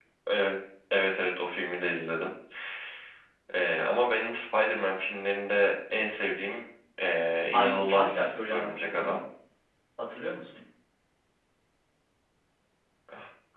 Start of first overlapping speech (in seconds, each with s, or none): 7.5 s